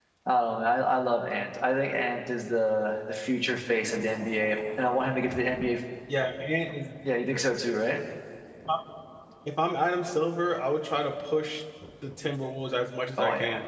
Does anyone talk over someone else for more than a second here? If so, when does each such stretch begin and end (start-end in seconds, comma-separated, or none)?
none